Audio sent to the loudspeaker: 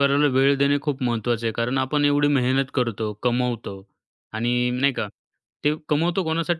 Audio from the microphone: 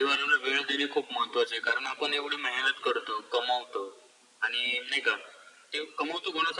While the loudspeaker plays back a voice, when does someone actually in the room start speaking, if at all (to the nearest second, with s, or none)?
none